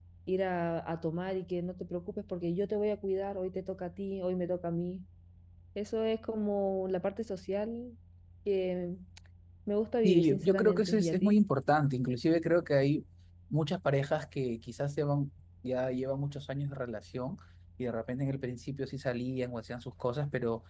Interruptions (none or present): present